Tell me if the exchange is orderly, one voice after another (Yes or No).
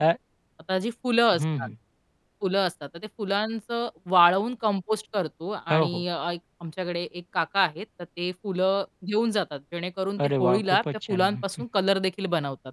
No